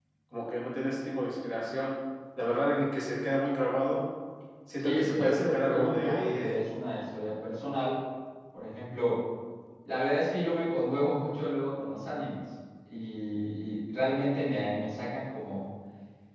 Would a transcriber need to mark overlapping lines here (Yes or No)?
Yes